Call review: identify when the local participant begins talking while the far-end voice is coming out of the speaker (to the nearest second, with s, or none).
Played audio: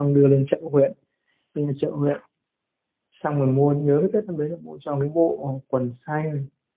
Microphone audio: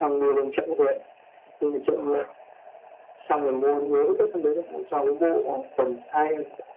none